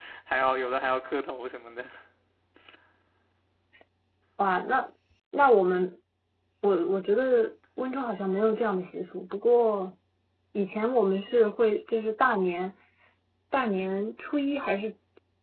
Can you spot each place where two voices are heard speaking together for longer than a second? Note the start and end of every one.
none

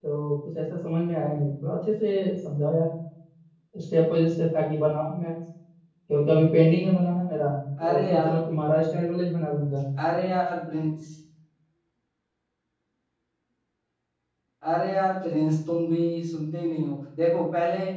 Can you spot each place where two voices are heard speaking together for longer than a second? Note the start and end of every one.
none

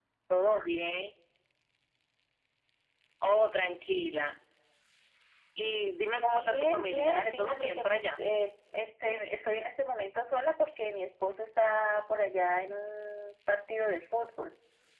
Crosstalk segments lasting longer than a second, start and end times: 6.3-8.2

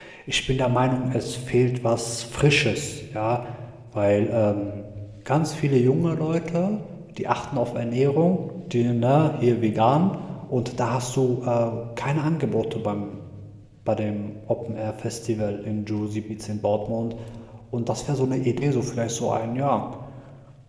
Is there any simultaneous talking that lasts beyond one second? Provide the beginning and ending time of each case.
none

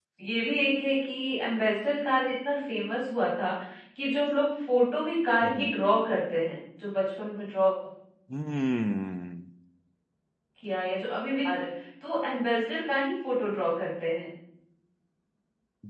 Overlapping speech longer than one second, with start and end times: none

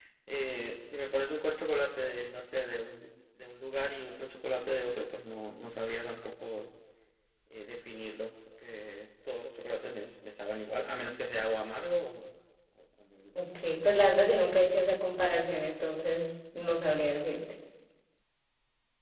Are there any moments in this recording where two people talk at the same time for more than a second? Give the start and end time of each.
none

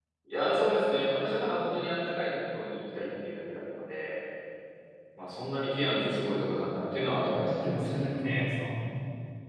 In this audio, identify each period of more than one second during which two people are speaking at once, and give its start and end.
7.2-8.4

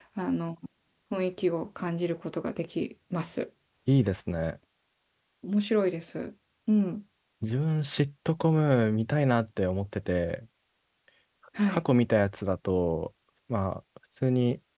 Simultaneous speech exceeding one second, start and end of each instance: none

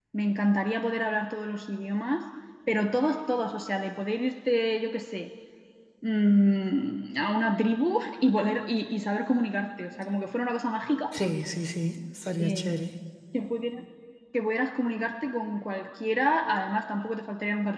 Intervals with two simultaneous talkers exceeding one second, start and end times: none

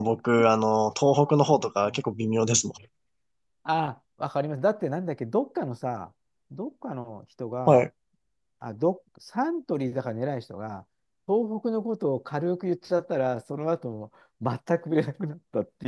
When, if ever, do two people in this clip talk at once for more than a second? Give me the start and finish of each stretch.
none

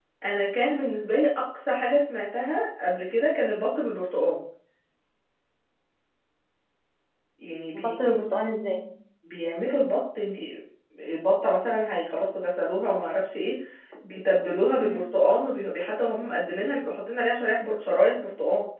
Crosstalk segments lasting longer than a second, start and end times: none

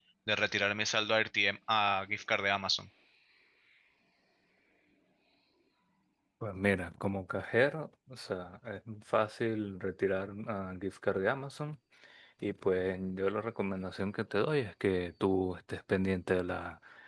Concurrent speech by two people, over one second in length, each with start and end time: none

